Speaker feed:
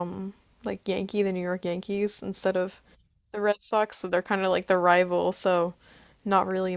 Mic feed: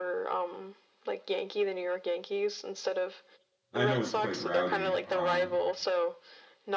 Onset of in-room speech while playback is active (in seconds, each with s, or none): 3.7 s